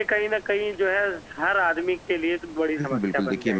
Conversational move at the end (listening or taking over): taking over